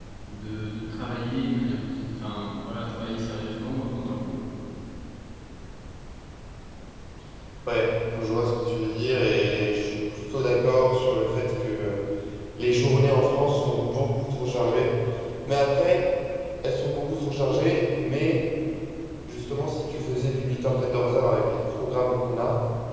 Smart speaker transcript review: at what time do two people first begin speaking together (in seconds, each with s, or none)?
none